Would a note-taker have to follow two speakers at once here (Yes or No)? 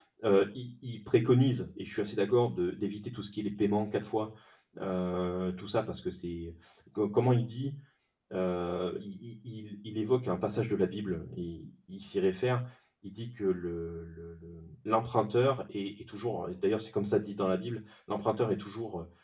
No